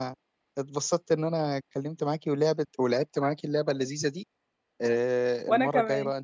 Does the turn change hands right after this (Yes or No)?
No